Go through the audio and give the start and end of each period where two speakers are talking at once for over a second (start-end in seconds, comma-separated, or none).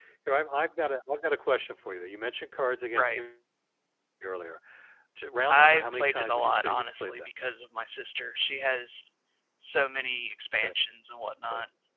5.5-7.3